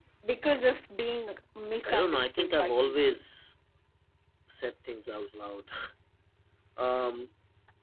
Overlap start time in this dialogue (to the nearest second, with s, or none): 2 s